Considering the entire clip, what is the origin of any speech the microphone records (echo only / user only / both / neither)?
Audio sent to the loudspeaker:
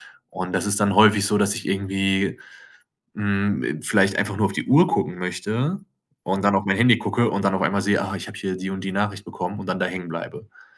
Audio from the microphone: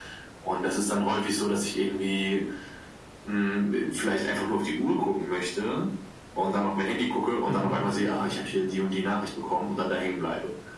both